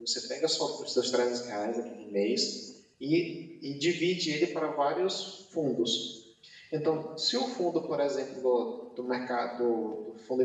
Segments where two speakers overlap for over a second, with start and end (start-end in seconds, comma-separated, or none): none